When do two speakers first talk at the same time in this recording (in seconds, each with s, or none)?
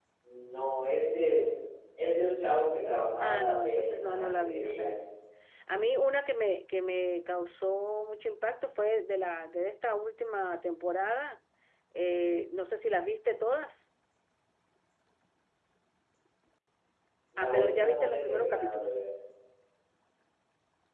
3.2 s